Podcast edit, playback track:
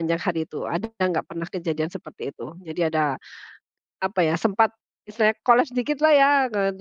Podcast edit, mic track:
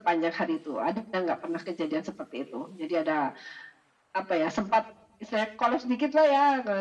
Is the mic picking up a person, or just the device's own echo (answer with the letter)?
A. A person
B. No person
B